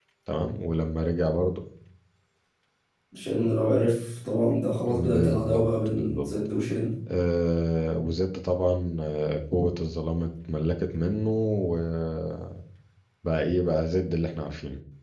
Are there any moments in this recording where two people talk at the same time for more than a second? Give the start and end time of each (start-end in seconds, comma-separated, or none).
4.8-6.3